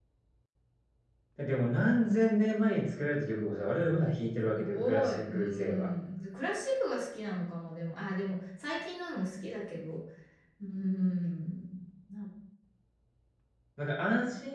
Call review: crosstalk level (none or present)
present